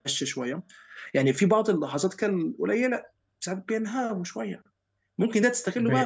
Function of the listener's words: listening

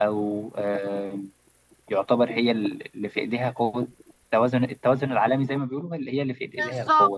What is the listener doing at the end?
taking over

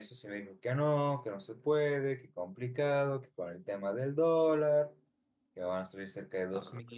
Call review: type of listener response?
listening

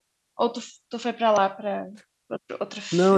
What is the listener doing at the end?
taking over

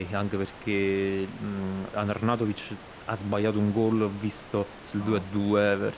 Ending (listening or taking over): listening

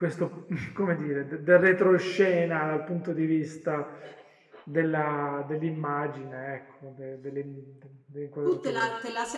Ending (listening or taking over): taking over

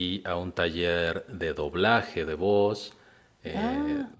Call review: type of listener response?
listening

